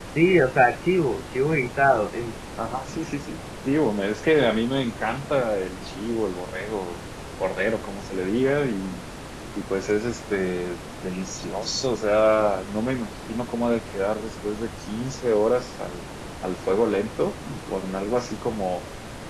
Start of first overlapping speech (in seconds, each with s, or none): none